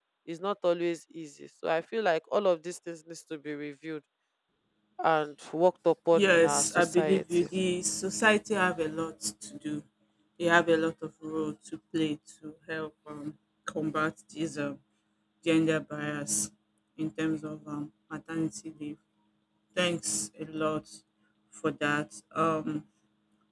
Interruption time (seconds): 6 s

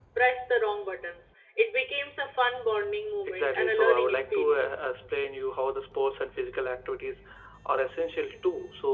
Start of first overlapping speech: 3 s

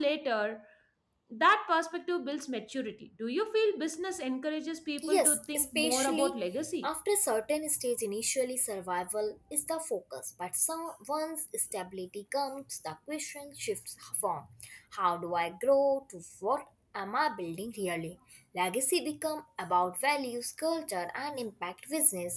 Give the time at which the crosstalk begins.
5 s

